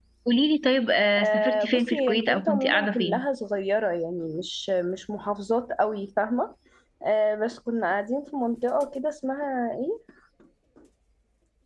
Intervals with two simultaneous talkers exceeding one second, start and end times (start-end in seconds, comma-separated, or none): 1.2-3.2